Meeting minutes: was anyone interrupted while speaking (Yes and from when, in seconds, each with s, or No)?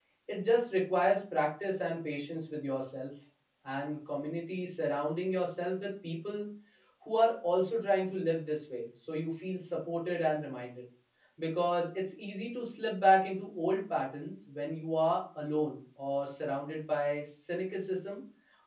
No